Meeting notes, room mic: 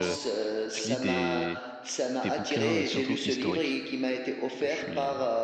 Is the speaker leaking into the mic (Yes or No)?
Yes